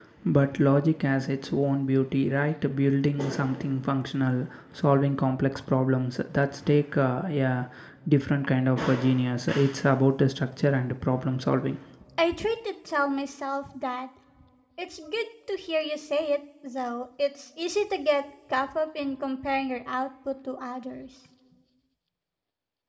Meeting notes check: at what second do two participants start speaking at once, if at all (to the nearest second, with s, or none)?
none